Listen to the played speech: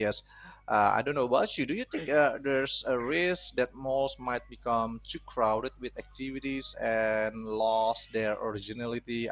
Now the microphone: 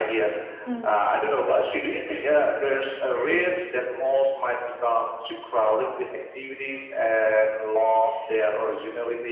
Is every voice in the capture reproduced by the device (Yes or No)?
No